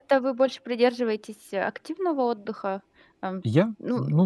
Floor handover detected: Yes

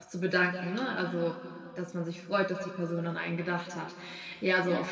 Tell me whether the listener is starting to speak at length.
No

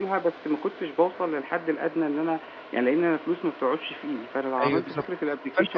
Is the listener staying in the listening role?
No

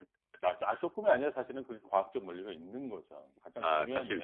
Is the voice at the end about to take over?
Yes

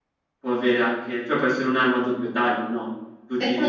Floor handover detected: No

